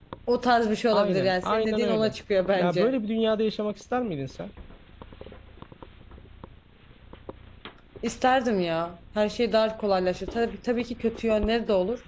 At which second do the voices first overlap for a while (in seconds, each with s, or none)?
0.9 s